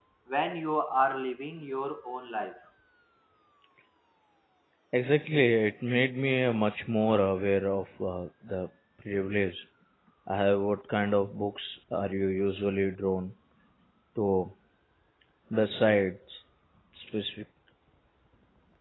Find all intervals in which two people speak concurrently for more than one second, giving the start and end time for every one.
none

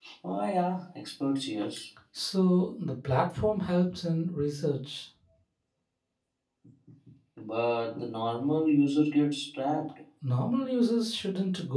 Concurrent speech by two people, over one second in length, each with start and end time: none

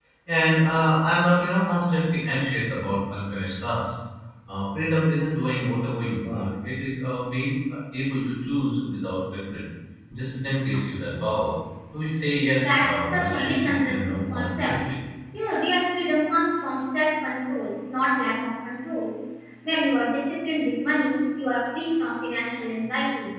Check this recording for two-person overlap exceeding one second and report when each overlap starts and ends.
12.6-14.8

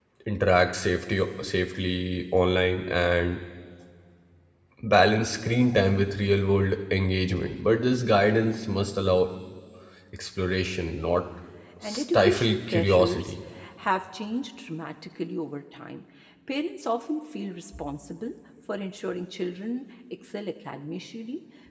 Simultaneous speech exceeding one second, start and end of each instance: 11.8-13.3

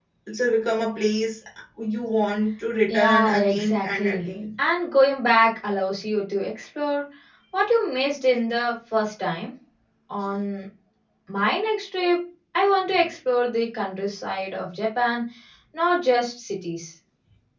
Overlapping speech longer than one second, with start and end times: 2.9-4.2

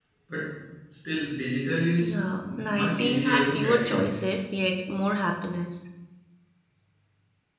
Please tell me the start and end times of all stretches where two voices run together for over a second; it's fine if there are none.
2.0-4.1

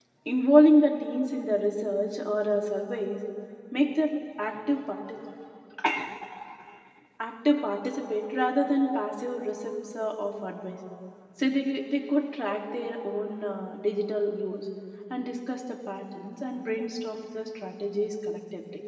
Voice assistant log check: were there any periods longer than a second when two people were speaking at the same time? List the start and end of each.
none

